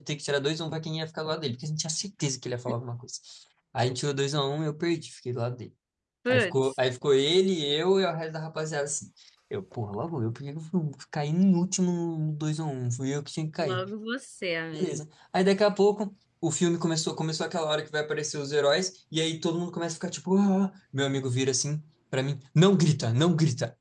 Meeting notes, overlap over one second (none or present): none